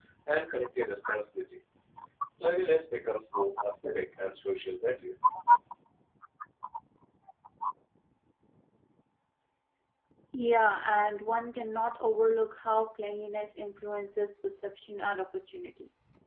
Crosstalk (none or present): none